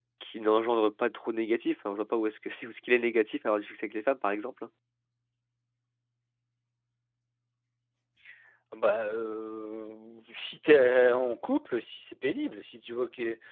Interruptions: none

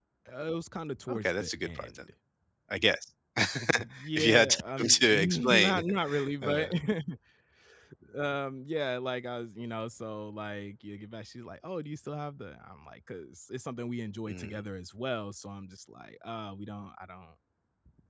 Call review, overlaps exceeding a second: present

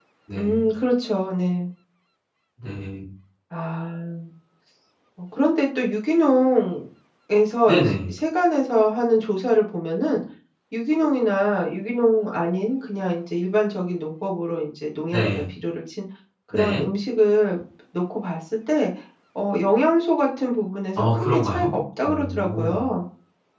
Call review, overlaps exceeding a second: present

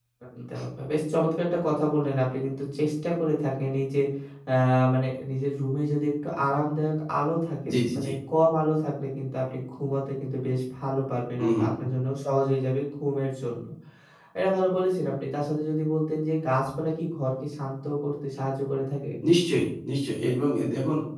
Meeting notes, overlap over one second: none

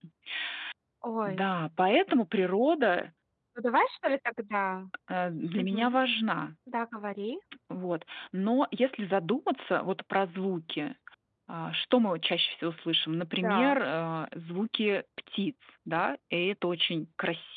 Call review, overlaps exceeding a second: none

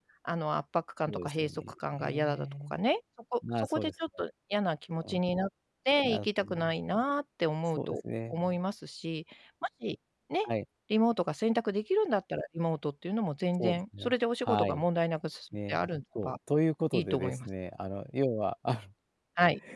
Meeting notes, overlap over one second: present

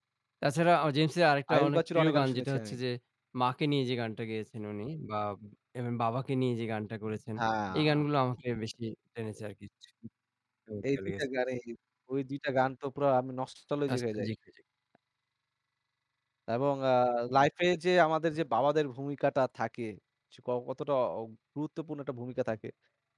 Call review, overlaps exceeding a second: present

